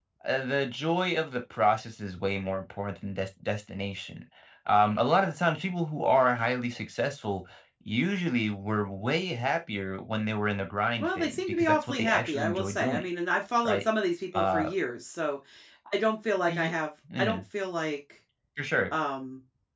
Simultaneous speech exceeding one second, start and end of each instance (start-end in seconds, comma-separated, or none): 11.0-13.1